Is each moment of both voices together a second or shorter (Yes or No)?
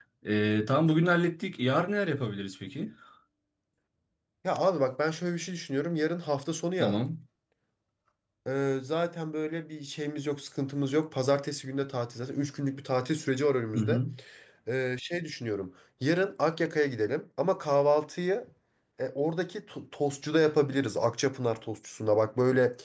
Yes